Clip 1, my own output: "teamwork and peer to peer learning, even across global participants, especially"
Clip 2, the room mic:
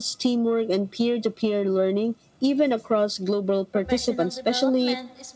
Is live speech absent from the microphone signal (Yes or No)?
No